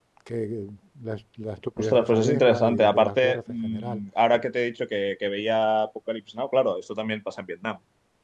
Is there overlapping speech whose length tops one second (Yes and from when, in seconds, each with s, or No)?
Yes, from 1.8 s